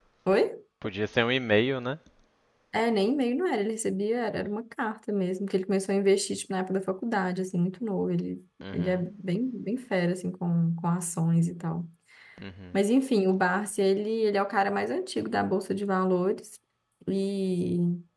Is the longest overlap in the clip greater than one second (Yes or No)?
No